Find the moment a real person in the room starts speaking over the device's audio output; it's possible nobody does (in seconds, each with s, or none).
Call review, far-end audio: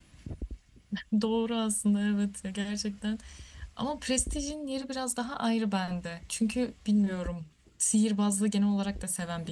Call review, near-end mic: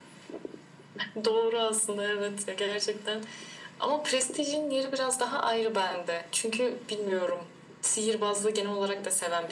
none